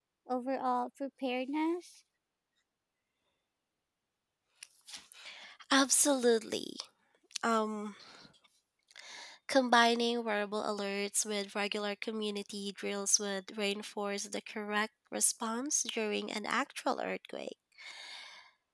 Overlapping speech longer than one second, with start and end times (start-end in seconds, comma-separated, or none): none